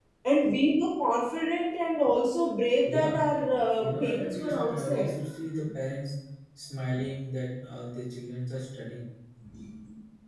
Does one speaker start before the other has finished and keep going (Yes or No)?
Yes